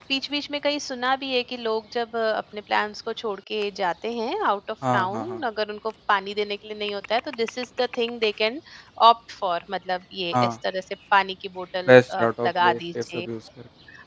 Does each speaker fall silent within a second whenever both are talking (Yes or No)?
No